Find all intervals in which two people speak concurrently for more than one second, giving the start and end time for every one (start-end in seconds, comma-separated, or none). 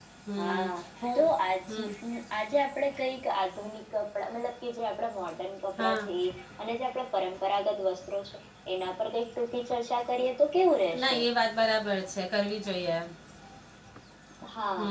none